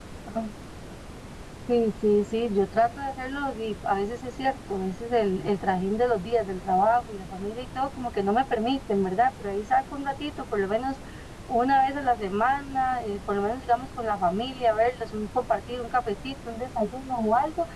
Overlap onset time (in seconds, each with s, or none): none